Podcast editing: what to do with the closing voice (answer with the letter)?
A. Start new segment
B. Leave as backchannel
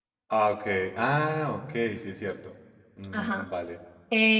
A